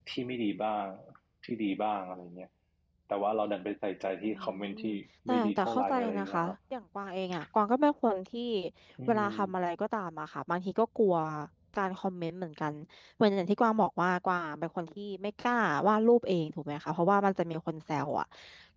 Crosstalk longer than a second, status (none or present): present